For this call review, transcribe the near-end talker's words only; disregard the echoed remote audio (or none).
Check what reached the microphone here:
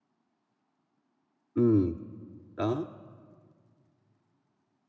Ừm, đó,